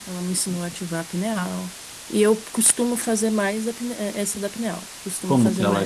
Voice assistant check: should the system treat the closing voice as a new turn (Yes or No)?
Yes